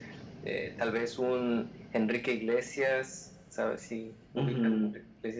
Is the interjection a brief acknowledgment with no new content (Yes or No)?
No